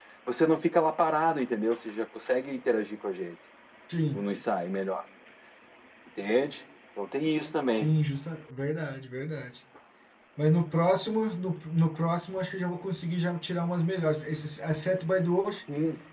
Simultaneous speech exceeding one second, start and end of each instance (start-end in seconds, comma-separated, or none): none